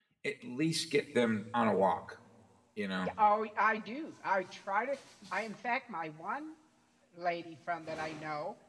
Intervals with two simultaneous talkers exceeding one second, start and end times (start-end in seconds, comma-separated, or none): none